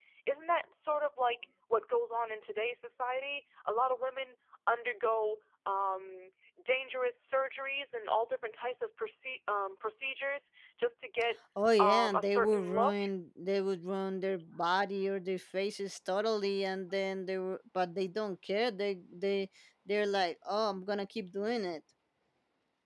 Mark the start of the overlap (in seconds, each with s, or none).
11.8 s